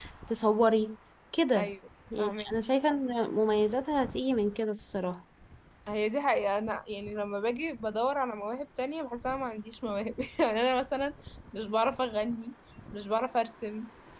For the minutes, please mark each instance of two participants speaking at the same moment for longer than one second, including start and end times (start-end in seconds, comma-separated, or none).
none